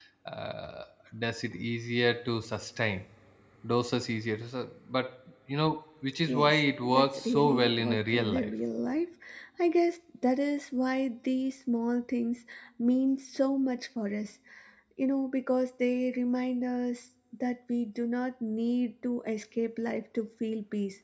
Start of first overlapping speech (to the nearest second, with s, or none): 6 s